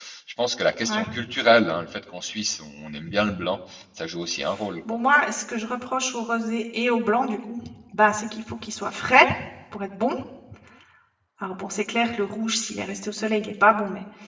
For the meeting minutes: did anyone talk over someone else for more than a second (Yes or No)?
No